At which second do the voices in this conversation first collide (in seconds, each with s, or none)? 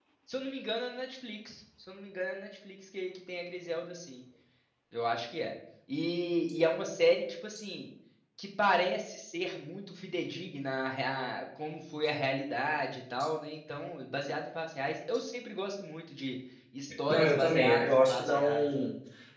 17.1 s